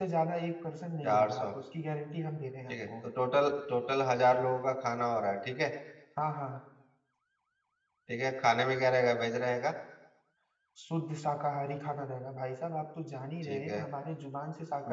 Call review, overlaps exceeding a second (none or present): none